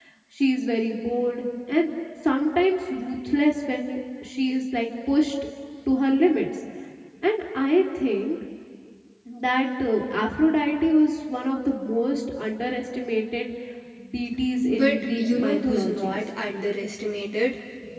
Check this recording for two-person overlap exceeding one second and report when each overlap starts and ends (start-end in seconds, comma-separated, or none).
14.7-16.2